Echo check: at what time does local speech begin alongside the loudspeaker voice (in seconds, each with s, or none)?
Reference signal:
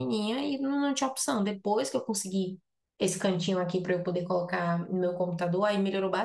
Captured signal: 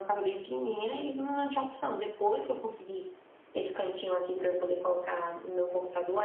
none